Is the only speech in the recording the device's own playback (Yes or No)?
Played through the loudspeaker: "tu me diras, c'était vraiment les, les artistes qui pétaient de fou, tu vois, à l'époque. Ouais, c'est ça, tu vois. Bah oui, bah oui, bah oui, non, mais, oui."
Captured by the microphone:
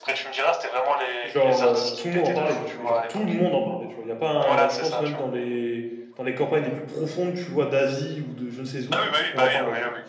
No